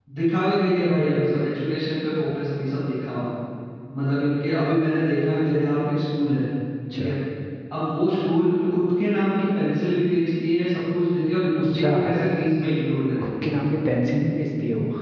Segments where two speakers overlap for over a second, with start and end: none

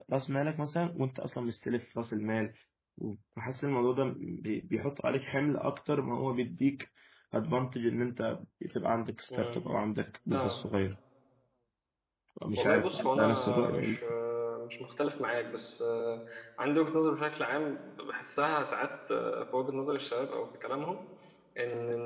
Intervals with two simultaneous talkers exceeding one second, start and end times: 12.6-14.0

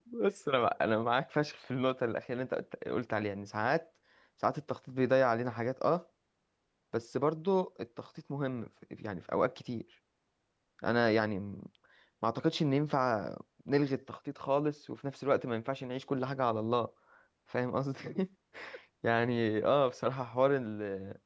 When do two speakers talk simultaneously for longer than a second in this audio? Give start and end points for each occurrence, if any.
none

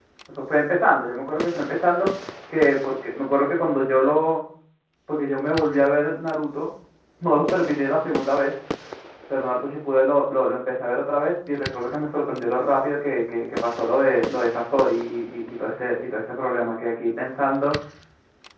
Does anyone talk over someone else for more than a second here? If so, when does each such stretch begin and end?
none

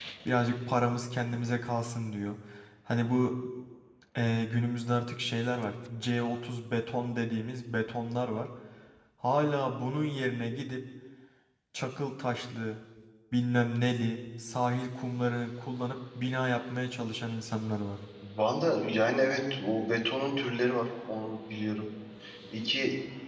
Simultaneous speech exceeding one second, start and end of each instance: none

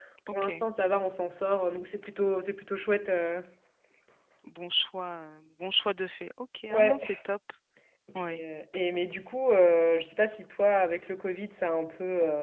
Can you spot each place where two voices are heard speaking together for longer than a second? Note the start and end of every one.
none

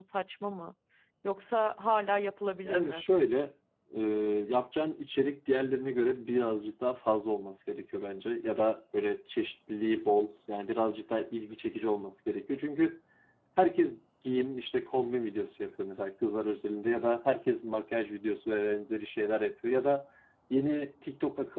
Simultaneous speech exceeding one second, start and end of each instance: none

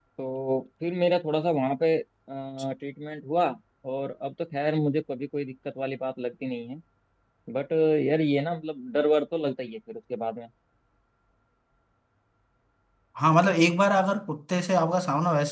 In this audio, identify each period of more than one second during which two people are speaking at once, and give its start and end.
none

